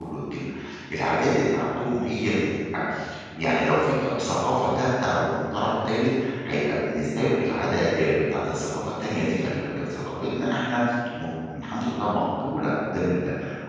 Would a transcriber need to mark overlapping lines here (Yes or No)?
No